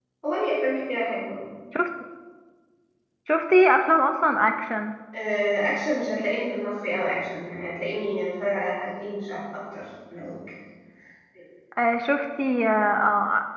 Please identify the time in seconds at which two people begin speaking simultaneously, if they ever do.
none

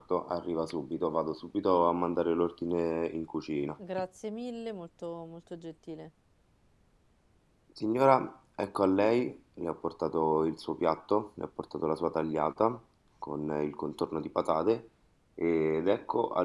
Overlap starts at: none

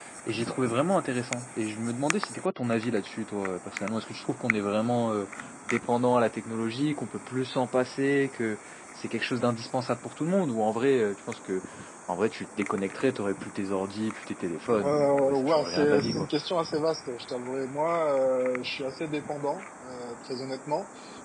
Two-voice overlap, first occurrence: 14.8 s

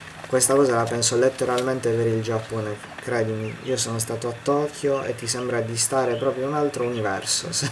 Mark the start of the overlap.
none

